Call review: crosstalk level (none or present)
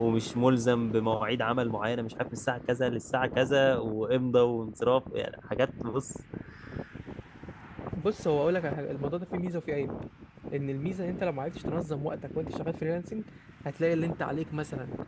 none